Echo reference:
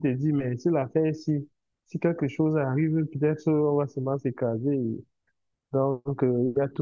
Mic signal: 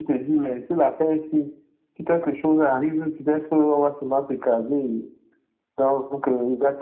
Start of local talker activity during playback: none

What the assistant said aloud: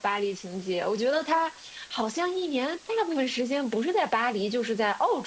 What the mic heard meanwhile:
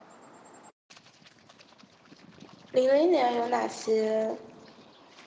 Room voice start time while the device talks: 2.7 s

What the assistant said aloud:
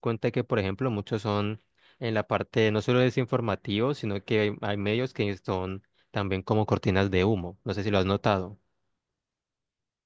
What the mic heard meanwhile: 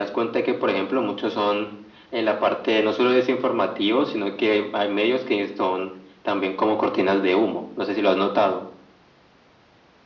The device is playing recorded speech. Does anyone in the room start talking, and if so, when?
none

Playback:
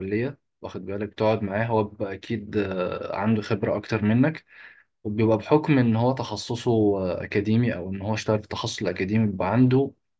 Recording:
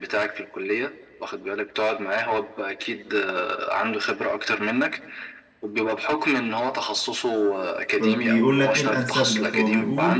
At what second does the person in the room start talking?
8.0 s

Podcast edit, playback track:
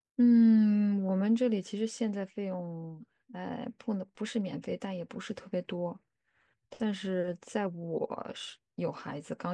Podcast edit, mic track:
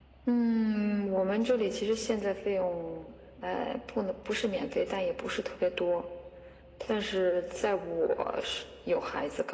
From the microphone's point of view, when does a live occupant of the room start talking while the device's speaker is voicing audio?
none

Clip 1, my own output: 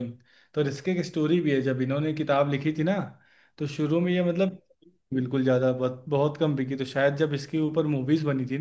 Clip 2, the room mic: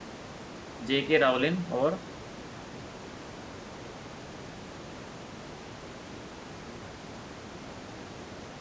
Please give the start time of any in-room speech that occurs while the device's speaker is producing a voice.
0.9 s

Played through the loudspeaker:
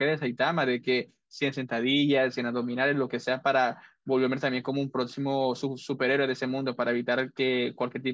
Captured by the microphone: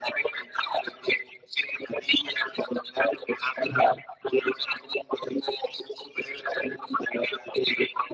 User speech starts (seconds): none

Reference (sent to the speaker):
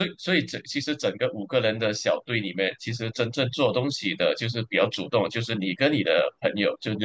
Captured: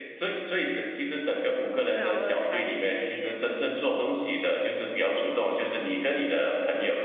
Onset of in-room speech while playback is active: 1.8 s

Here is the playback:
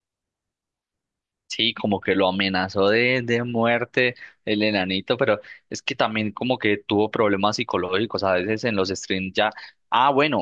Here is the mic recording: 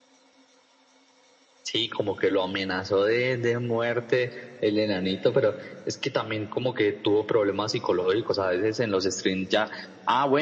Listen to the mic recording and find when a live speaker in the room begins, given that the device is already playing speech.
none

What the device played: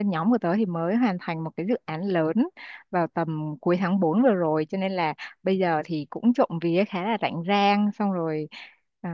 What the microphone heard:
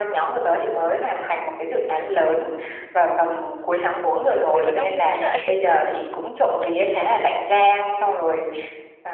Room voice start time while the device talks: 4.3 s

